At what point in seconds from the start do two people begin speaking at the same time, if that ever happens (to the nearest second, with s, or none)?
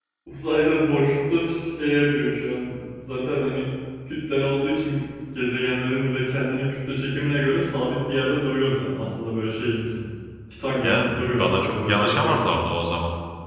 11 s